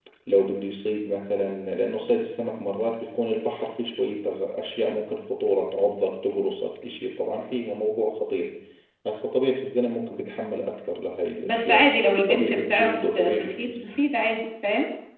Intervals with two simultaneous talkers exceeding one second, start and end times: 12.3-13.7

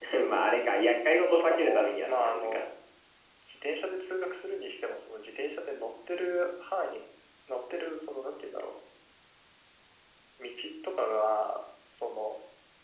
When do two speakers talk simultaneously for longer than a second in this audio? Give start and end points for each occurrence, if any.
1.0-2.6

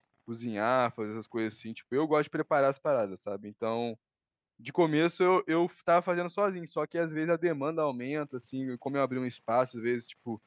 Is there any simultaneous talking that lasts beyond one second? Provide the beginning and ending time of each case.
none

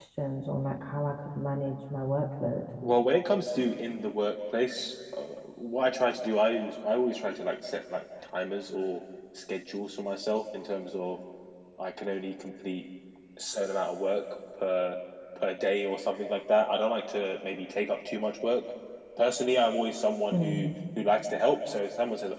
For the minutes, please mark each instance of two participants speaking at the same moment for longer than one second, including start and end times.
none

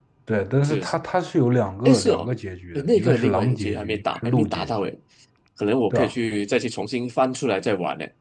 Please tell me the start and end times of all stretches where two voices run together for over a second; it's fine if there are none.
2.8-4.7

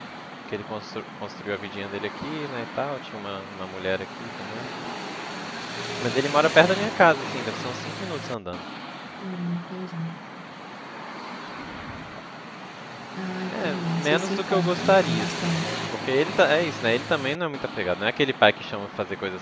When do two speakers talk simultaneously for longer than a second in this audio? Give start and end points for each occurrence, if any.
13.5-15.6

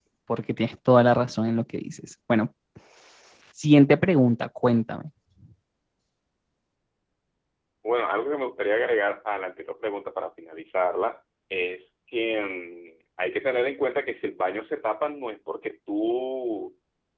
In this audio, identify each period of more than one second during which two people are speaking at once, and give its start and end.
none

